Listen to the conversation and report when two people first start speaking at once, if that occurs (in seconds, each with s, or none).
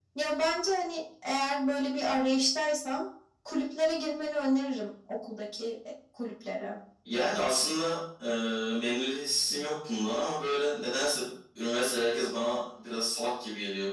none